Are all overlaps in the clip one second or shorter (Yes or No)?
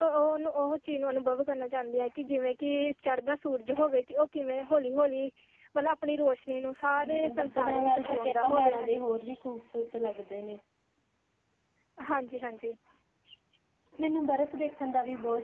No